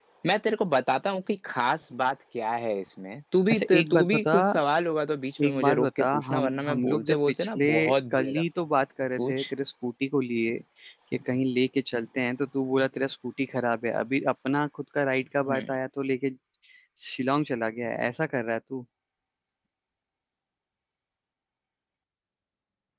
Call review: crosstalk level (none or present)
present